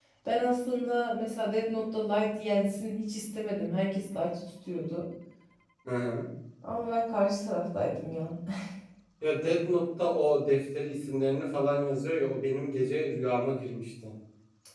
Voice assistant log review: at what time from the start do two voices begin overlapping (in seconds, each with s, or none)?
none